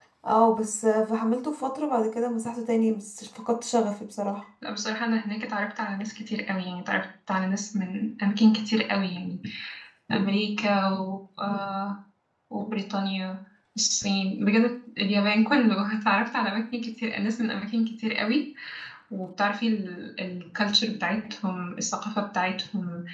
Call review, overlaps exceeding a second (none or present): none